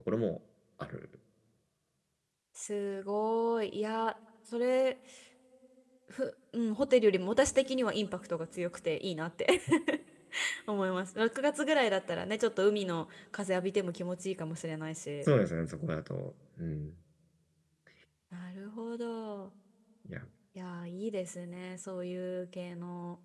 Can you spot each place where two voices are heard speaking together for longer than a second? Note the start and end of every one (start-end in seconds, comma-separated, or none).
none